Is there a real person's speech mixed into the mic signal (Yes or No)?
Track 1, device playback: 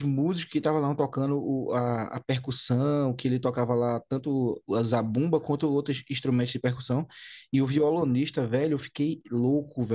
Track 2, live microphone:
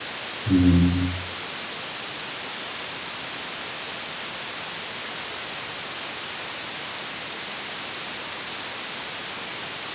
Yes